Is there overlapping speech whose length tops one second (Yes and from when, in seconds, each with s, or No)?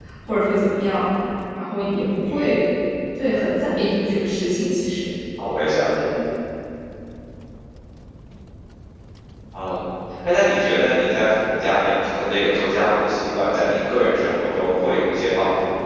No